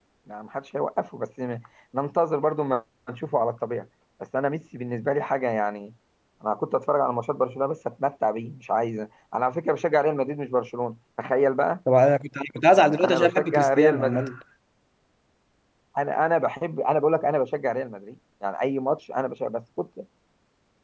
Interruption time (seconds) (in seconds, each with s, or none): 12.7 s